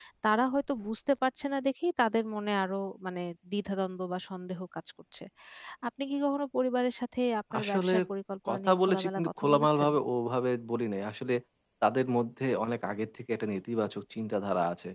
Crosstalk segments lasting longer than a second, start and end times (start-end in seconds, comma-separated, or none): 8.5-9.9